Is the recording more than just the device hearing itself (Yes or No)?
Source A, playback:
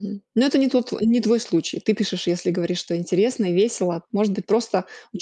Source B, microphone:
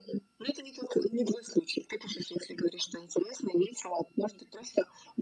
No